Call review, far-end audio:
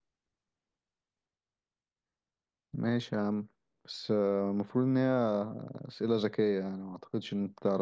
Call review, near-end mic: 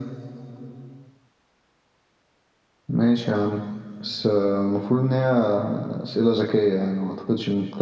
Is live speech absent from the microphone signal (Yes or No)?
Yes